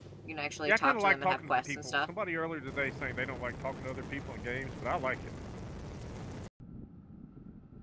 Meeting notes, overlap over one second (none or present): present